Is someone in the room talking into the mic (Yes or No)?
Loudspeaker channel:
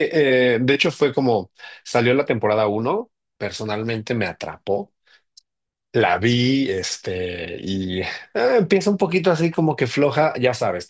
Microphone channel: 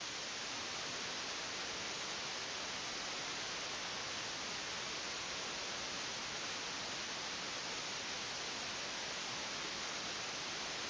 No